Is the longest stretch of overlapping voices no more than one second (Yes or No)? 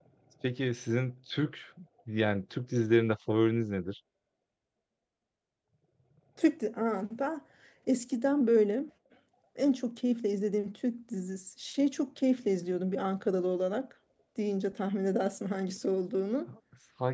Yes